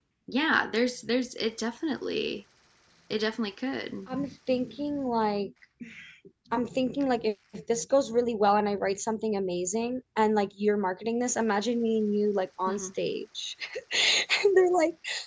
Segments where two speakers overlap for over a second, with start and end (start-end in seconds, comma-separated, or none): none